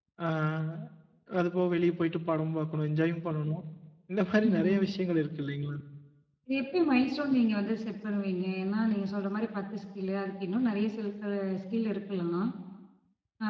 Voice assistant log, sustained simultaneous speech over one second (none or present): none